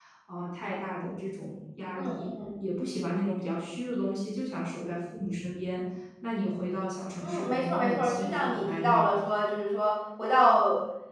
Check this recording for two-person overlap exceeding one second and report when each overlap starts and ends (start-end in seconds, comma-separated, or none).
7.2-9.1